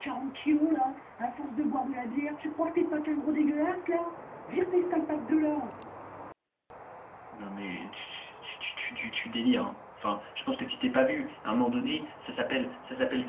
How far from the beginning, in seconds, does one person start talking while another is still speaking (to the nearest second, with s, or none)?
none